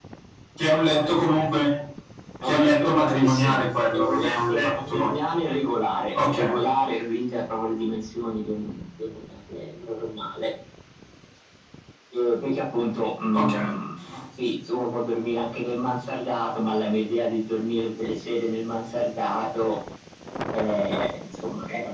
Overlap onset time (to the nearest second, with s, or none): 2 s